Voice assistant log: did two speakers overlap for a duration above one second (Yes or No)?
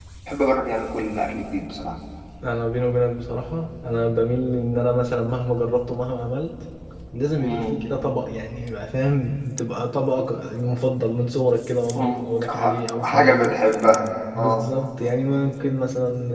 Yes